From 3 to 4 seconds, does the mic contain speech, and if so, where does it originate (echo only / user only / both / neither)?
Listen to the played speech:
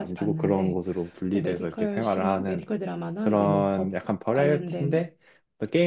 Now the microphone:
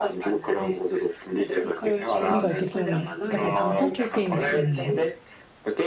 both